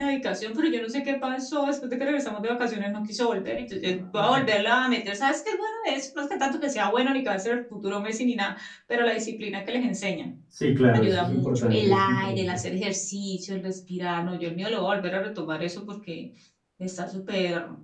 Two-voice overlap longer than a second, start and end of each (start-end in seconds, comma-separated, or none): 10.9-12.4